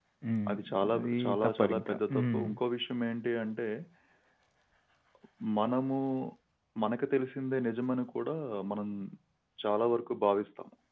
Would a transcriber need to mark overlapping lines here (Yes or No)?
Yes